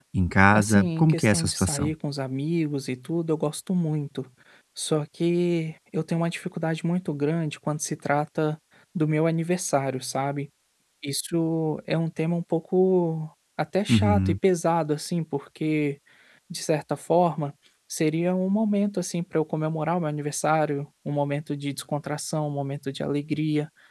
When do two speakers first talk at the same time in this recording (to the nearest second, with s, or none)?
1 s